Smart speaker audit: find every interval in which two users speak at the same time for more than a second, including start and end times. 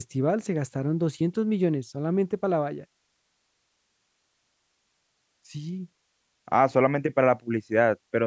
none

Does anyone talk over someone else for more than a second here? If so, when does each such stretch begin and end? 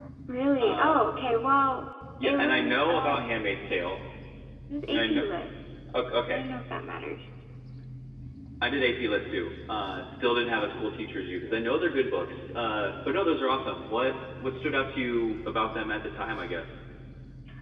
2.2-3.8

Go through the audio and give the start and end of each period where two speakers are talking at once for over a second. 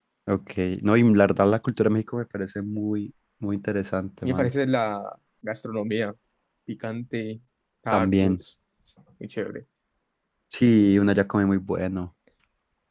none

